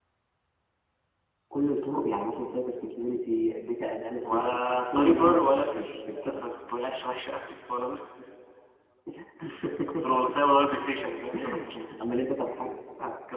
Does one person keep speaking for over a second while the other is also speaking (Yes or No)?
Yes